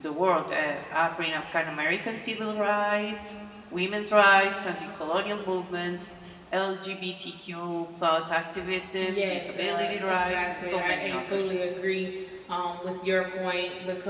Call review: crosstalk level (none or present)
present